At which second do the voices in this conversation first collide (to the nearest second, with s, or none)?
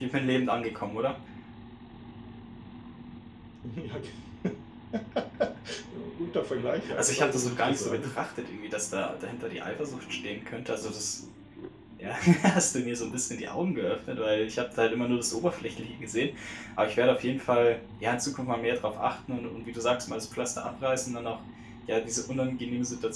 7 s